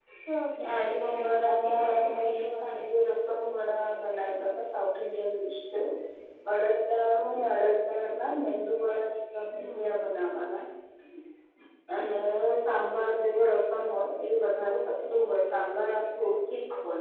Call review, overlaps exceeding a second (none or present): present